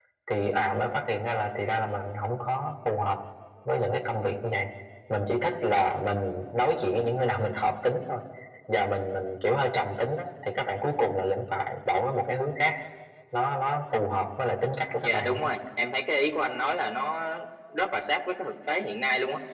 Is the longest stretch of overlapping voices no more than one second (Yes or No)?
Yes